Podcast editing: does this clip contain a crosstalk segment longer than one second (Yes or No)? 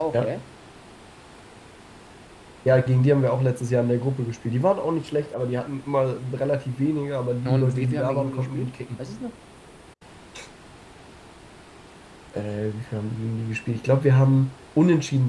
Yes